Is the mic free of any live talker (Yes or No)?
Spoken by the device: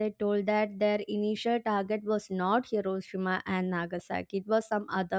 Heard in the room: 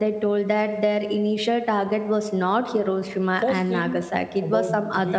No